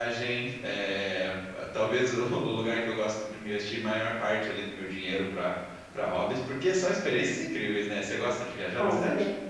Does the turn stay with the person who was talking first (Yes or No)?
No